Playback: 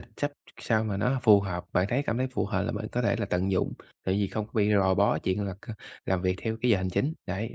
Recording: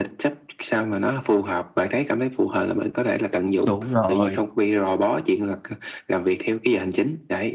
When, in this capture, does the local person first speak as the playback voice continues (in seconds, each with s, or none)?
3.6 s